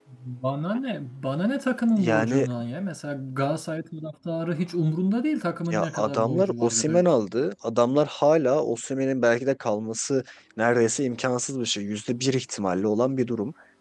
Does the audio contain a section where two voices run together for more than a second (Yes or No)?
Yes